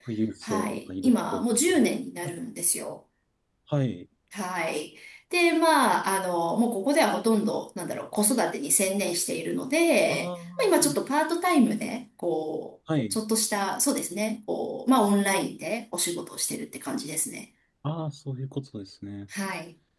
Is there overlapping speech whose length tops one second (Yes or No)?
Yes